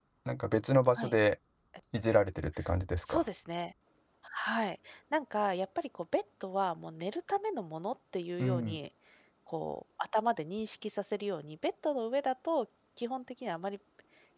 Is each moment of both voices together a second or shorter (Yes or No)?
Yes